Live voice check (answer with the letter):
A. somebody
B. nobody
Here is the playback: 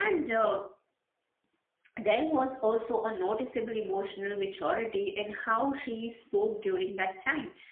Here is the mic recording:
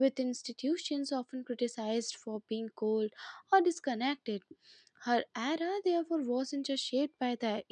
A